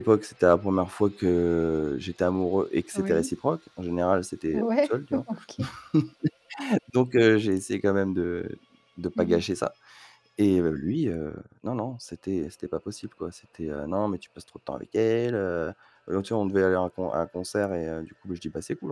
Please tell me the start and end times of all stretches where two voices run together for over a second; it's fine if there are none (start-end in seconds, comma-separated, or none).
none